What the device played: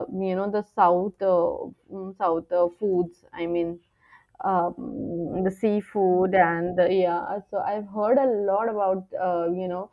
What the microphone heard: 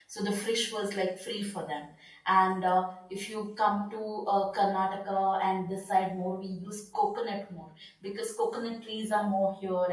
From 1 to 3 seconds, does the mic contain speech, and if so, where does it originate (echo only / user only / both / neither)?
user only